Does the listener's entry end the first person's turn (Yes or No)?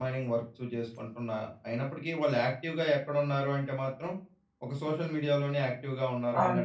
Yes